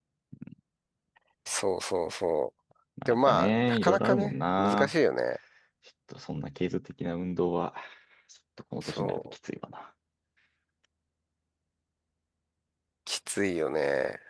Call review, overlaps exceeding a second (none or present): present